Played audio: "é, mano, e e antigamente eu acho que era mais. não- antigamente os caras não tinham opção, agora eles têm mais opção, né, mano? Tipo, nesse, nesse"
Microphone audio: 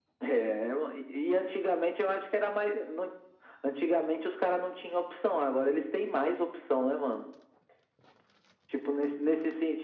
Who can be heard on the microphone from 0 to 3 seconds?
echo only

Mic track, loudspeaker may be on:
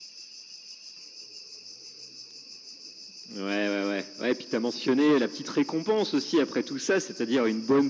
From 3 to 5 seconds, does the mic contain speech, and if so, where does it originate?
echo only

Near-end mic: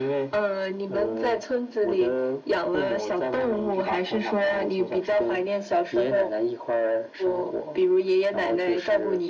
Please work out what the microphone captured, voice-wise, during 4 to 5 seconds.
echo only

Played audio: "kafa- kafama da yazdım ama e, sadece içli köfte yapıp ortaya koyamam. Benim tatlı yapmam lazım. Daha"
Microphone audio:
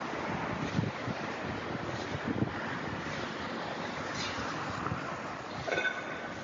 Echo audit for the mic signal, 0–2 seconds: neither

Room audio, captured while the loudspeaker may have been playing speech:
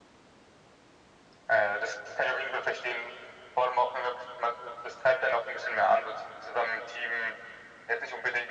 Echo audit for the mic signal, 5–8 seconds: echo only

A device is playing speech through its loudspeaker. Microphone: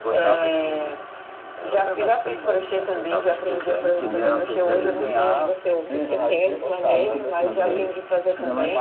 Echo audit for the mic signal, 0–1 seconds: echo only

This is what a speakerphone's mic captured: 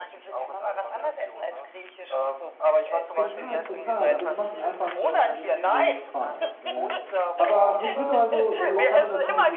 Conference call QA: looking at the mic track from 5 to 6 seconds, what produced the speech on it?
both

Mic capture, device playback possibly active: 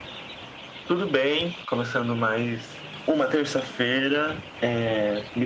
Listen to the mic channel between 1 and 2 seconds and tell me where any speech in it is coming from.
echo only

